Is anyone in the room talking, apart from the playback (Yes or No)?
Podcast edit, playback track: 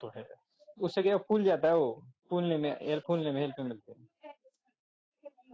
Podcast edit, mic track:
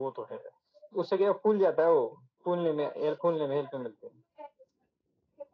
No